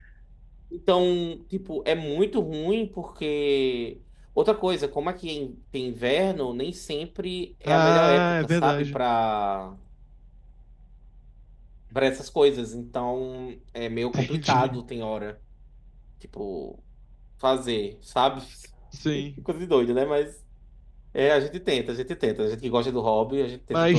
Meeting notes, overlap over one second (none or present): present